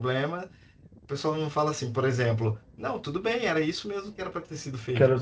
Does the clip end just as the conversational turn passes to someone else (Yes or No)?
Yes